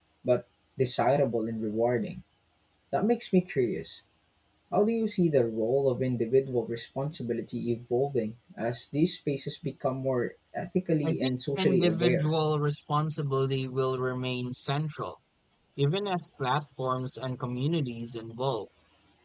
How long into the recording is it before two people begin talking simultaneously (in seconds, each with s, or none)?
11.0 s